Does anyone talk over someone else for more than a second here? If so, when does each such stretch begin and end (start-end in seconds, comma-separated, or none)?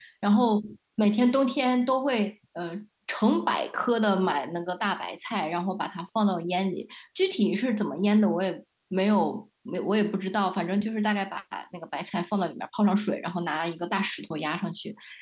none